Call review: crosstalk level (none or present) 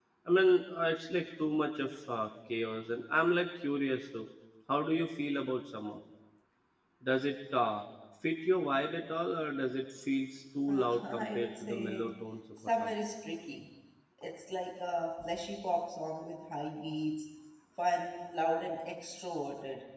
present